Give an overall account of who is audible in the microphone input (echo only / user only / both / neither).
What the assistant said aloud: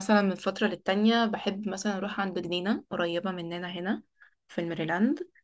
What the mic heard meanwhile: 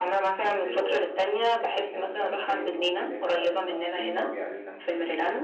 both